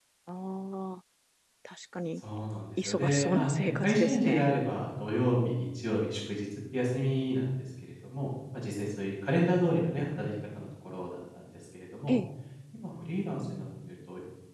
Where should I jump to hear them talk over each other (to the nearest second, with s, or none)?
3 s